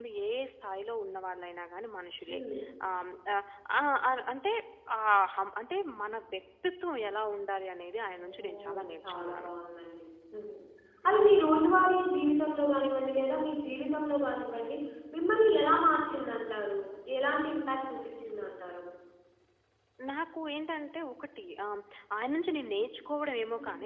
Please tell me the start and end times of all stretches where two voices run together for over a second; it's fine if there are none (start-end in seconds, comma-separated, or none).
8.2-9.5